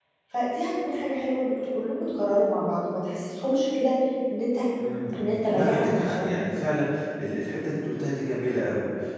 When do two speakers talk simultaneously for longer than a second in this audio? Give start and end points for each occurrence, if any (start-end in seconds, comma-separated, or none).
5.2-6.4